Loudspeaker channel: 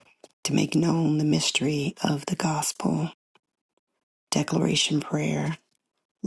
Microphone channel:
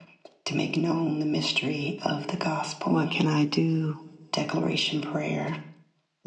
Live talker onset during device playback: 3 s

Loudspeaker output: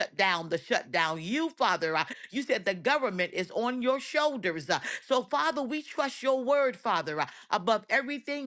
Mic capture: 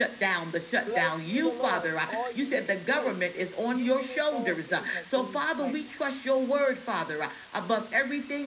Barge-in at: 1 s

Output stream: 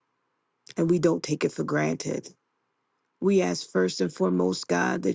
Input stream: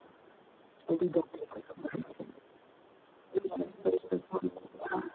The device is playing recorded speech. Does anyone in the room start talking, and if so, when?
none

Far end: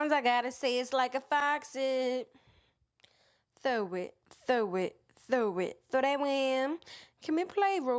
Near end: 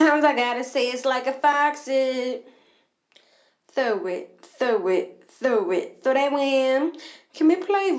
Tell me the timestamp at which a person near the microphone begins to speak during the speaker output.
none

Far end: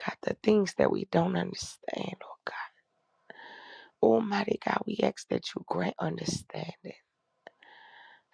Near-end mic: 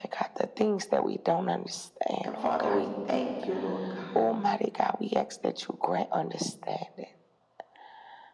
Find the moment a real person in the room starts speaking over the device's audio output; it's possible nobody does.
2 s

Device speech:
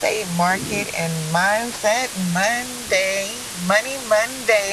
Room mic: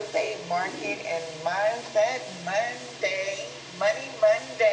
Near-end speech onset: none

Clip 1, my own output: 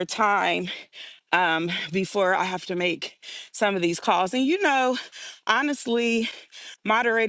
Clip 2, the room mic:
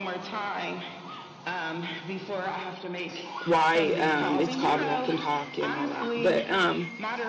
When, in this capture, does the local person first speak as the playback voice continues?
3 s

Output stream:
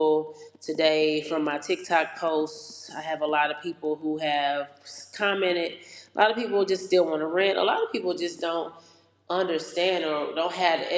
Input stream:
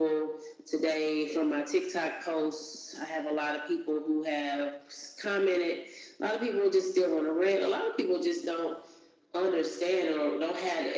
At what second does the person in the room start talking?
none

